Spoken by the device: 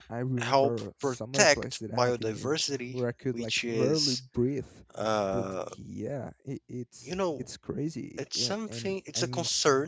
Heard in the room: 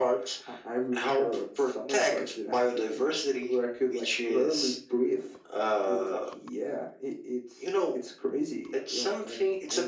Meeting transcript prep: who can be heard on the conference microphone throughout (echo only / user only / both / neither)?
echo only